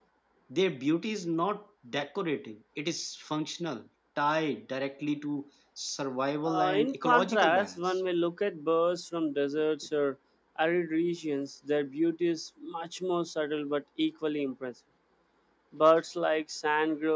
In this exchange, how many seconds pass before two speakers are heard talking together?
6.4 s

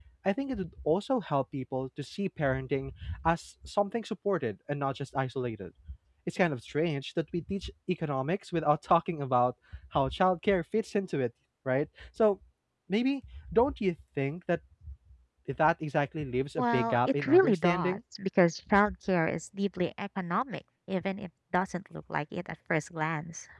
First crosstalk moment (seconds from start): 16.6 s

